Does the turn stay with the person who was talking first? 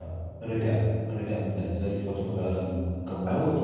No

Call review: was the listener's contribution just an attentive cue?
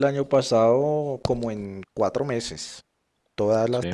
Yes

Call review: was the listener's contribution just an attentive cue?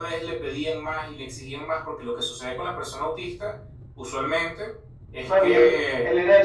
No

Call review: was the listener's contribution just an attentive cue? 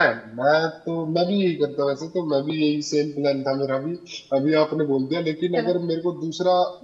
Yes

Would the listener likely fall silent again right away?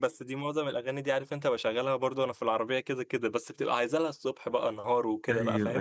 No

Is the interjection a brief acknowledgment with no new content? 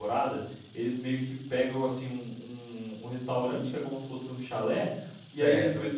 Yes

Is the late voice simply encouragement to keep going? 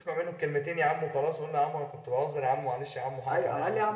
No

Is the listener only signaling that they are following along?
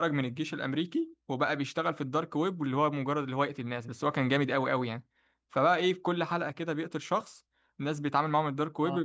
Yes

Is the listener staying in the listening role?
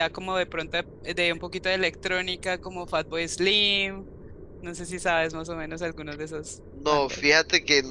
No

